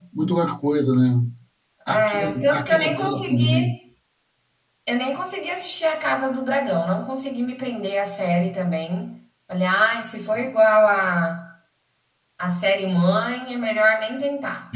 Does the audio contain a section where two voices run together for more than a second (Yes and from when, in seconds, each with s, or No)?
Yes, from 1.9 s